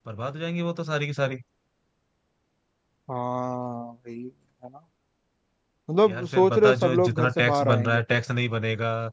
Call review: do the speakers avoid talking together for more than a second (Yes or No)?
No